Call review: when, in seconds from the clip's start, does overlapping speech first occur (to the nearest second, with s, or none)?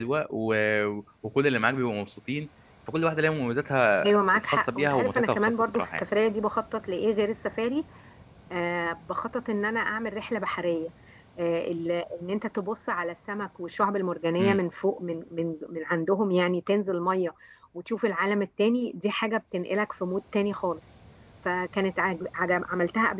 4 s